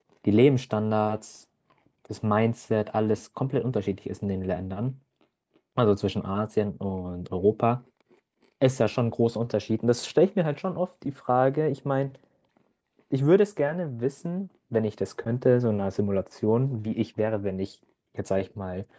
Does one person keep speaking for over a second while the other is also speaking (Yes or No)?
No